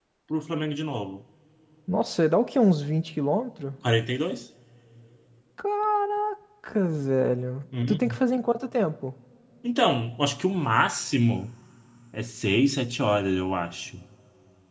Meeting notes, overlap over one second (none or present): none